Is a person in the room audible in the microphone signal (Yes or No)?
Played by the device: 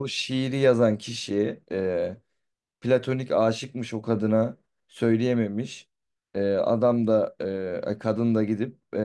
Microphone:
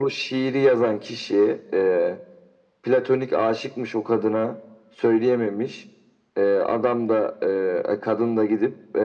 No